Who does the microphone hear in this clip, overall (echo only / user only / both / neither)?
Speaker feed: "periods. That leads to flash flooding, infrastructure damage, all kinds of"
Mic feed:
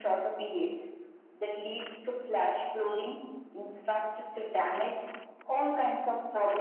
echo only